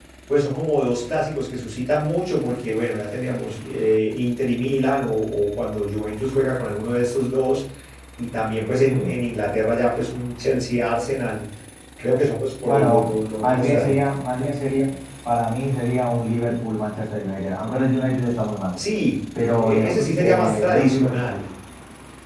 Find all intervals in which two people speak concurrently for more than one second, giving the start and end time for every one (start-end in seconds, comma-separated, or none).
12.6-14.0, 19.3-21.2